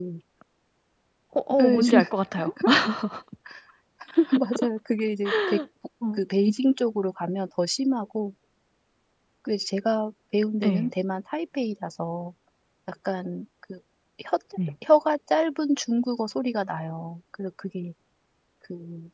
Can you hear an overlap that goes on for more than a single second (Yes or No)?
No